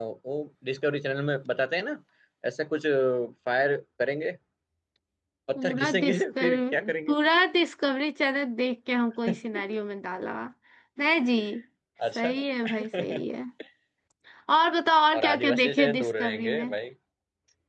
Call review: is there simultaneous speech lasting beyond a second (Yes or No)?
Yes